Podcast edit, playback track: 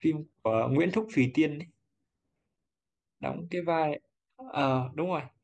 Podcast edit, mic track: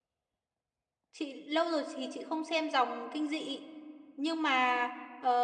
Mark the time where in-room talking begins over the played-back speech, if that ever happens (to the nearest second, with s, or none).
1 s